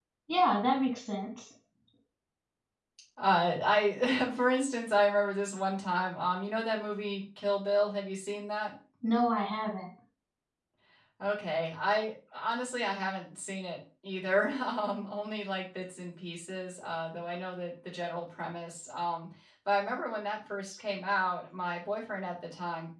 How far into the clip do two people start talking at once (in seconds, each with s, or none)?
none